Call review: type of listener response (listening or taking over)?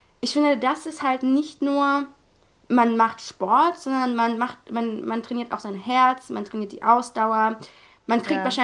listening